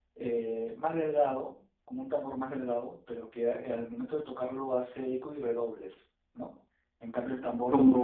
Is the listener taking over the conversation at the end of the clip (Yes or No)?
No